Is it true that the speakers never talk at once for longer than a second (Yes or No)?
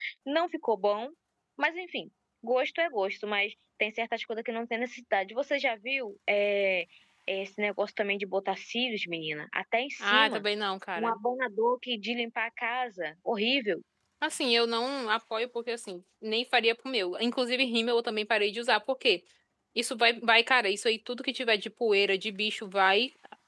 Yes